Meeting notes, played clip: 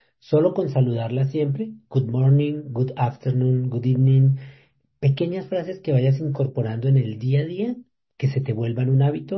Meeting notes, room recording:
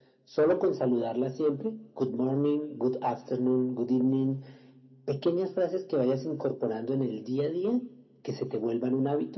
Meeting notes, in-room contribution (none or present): none